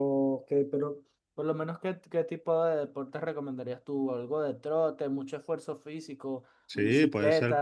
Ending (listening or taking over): taking over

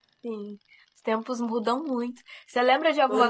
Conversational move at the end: listening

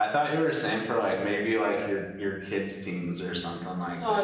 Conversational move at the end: taking over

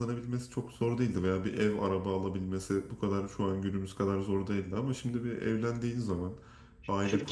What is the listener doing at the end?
taking over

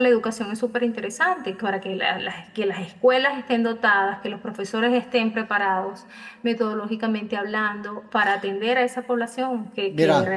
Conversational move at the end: taking over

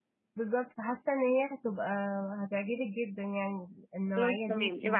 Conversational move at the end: taking over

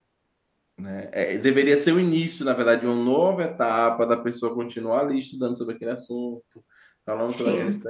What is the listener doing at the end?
listening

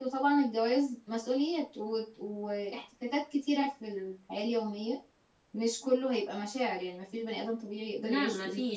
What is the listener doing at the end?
taking over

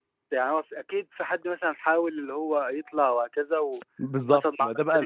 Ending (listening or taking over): taking over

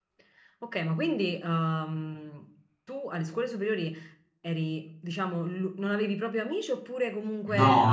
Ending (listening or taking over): taking over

